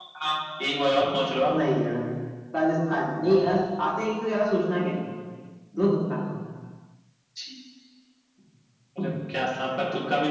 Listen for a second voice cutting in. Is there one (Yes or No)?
No